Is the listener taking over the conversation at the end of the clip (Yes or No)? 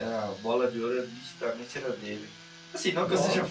No